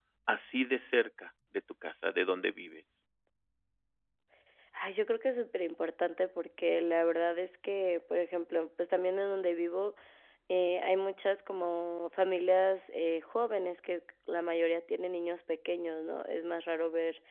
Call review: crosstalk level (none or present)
none